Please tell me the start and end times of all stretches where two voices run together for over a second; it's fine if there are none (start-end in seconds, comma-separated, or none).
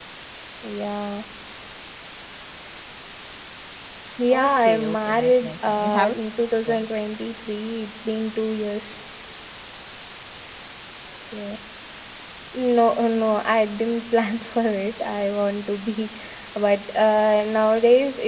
4.3-6.2